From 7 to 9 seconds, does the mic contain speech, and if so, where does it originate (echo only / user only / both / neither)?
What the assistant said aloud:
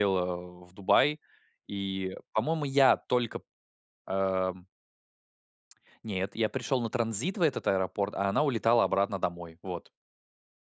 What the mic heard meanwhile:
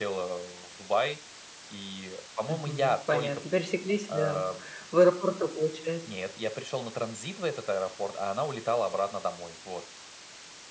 echo only